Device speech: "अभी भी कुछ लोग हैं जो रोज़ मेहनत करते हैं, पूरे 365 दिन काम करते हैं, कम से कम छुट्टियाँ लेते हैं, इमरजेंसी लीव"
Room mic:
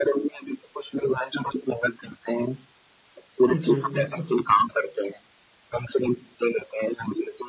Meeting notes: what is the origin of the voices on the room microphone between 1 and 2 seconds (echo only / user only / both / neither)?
echo only